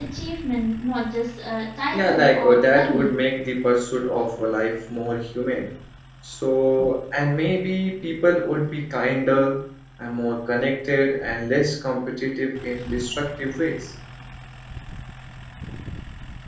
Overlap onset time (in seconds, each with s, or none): 1.9 s